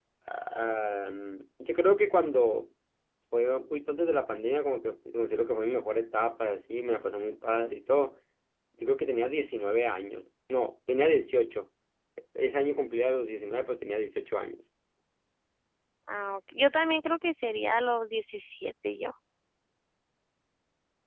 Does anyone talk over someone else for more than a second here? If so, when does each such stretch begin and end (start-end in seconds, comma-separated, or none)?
none